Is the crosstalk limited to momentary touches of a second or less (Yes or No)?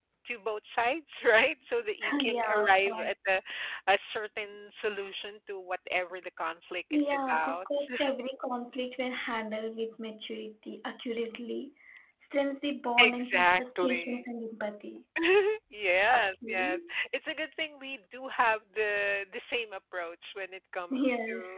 No